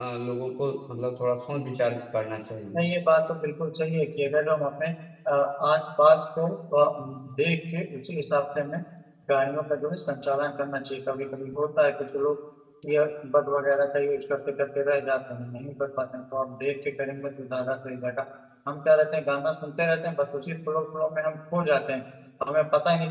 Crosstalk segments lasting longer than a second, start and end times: none

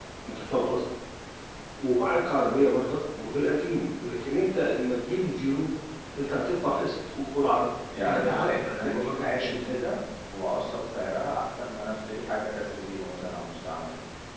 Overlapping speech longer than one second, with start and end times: 8.0-9.8

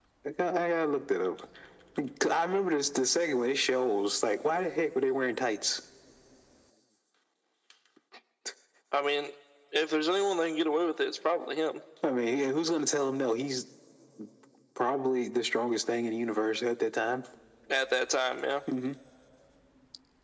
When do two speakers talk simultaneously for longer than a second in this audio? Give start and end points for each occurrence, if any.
none

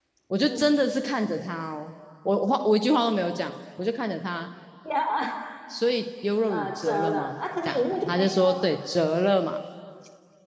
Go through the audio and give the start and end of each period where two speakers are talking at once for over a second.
6.5-8.5

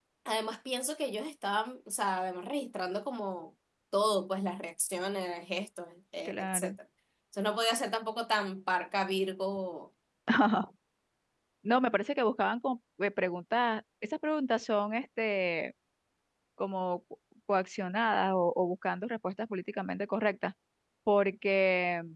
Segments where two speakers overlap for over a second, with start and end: none

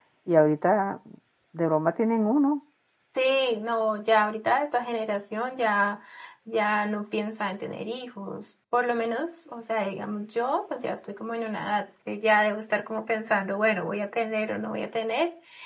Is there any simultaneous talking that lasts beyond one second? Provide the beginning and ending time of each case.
none

